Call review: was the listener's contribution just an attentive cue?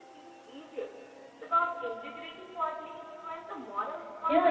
No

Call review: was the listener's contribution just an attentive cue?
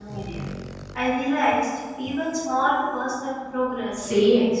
No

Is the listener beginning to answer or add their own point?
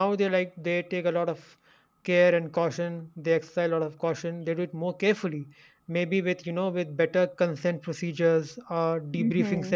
No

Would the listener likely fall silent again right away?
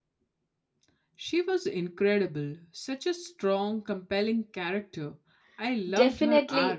No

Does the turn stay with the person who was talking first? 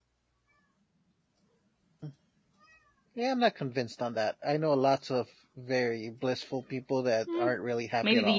No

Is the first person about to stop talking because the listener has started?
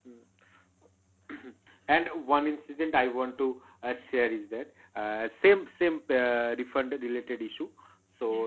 No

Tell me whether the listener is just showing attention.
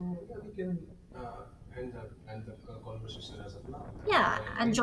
No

